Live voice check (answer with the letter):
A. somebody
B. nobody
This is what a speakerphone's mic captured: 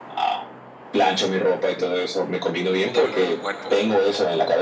A